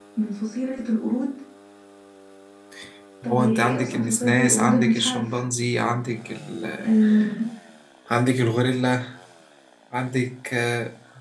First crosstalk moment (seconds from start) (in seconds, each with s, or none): 3.2 s